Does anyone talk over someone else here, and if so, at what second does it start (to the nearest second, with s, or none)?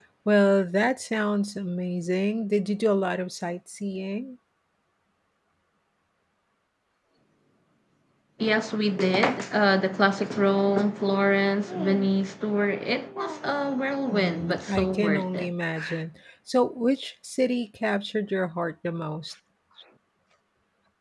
14 s